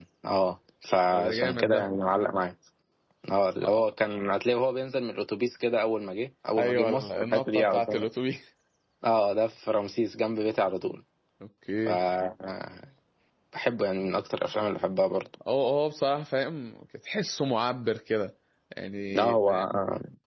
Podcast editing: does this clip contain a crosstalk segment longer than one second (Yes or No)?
Yes